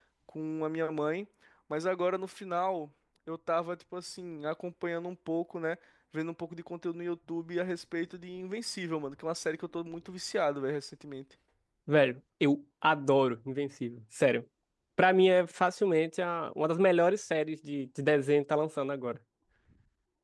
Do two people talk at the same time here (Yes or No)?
No